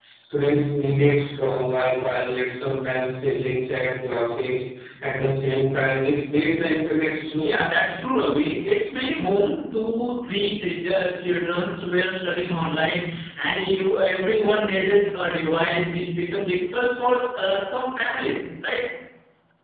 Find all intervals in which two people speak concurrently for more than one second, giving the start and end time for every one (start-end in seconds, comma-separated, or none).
none